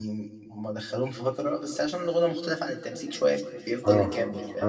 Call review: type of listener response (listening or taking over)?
taking over